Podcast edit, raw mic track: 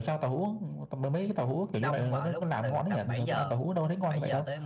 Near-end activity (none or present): present